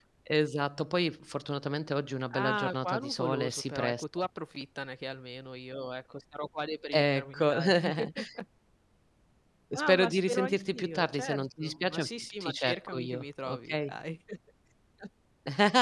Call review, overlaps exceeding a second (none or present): present